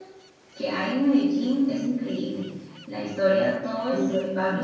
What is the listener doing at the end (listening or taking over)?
listening